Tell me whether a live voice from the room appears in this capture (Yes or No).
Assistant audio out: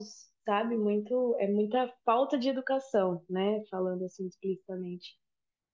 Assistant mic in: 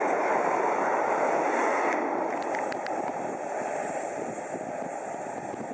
No